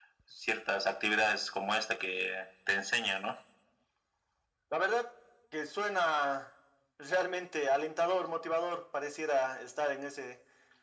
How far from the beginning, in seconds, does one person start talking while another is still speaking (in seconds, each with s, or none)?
none